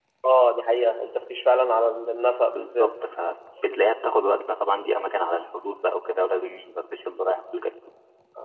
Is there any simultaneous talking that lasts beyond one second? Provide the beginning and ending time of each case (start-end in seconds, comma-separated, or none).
none